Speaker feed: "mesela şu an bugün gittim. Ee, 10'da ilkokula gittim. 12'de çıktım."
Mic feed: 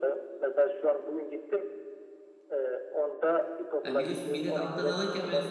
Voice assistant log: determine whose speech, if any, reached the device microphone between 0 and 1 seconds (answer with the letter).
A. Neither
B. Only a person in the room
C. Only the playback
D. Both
C